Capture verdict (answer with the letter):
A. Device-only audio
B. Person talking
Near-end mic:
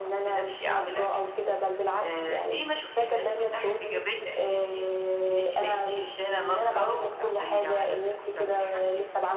A